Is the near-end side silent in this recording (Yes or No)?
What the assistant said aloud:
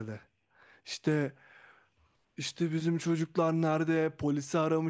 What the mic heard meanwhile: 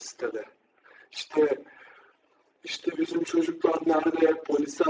Yes